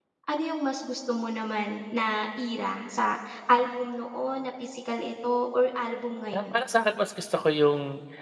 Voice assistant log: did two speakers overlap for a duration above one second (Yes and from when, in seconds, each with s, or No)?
No